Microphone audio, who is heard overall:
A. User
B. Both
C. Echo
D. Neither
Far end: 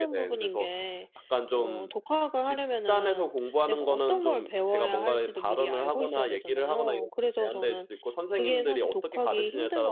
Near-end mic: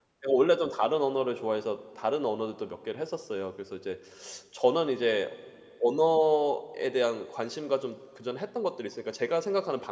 A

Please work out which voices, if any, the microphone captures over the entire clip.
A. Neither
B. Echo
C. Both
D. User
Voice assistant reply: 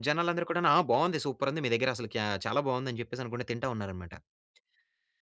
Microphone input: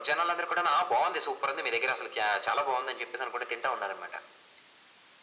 B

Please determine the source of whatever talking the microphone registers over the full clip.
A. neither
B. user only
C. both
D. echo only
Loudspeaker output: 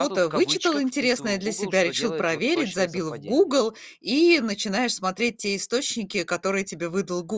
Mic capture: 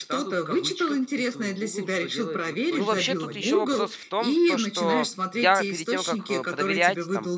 C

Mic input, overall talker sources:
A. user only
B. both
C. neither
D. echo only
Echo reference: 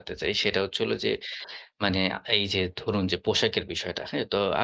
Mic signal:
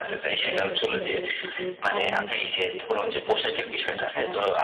B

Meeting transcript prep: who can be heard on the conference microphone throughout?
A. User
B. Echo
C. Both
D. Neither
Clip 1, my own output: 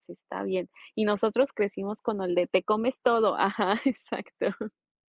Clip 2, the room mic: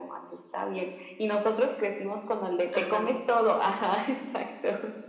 C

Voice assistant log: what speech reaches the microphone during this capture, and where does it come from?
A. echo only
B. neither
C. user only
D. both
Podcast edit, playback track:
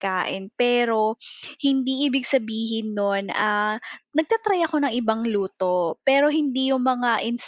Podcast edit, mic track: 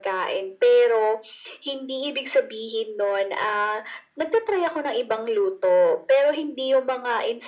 A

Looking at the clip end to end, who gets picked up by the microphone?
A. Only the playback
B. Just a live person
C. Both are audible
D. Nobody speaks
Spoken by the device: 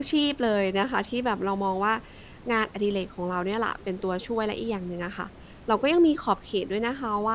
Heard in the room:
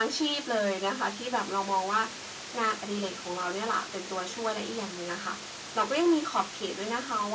A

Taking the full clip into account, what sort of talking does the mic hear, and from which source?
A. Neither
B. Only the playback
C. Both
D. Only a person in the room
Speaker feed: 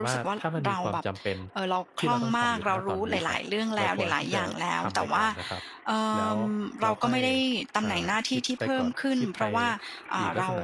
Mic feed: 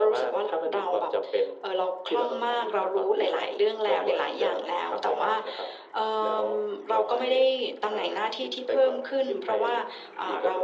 B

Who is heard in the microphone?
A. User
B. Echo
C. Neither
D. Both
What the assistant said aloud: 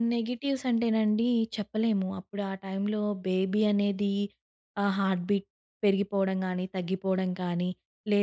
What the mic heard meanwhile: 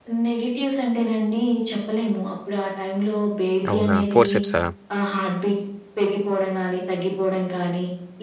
D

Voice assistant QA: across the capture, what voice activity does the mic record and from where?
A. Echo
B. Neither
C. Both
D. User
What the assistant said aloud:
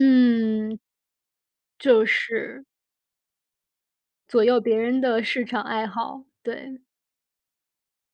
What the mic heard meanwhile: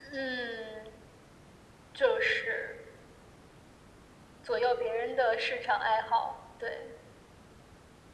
A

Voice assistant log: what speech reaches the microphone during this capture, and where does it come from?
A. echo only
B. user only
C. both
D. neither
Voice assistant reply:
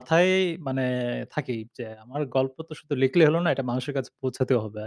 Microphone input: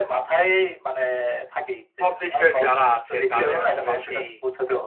C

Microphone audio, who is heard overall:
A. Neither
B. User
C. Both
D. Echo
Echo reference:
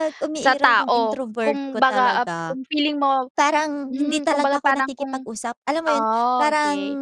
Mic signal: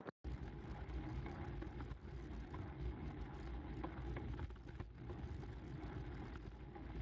A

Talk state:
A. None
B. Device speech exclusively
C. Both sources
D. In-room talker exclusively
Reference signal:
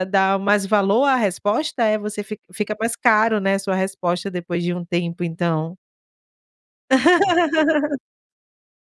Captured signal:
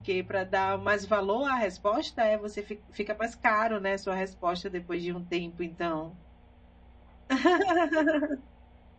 B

